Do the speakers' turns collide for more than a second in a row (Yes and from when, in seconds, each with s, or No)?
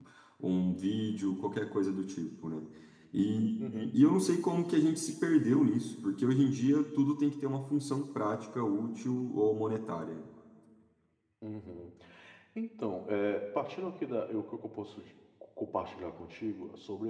No